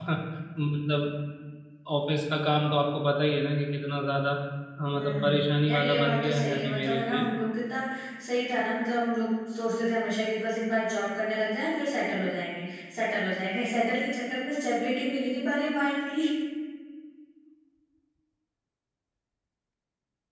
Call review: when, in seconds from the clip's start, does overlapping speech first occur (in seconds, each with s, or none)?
5.0 s